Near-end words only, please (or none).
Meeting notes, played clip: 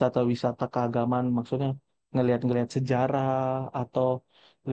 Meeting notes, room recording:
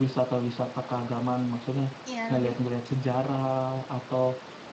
Ya, lebih